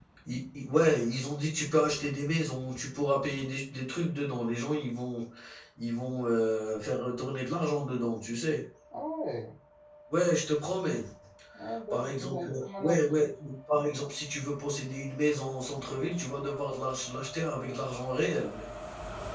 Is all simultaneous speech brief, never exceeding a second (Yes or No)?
No